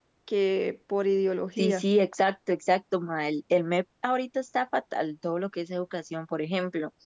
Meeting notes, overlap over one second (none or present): none